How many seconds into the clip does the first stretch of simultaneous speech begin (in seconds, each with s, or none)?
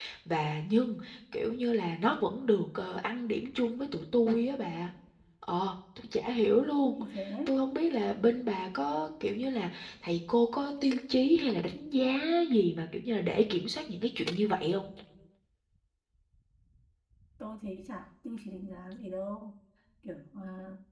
none